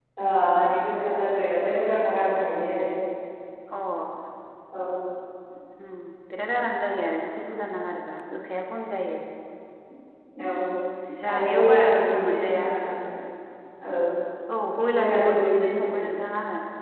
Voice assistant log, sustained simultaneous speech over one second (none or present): present